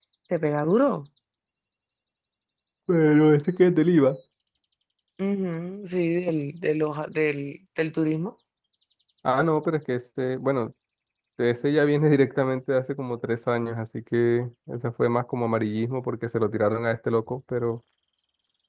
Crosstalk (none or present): none